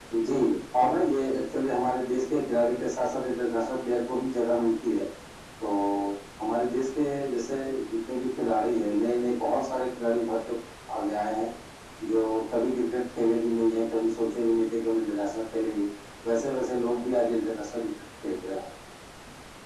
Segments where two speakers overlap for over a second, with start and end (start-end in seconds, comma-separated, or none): none